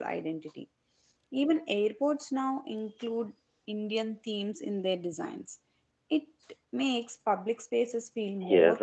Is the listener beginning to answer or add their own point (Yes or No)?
Yes